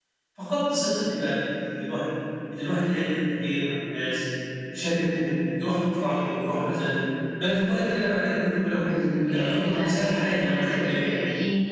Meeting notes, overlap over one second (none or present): present